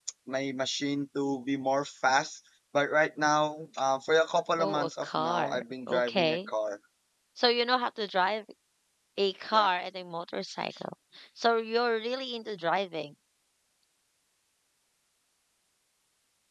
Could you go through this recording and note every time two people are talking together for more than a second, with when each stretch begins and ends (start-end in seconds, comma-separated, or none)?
4.6-6.5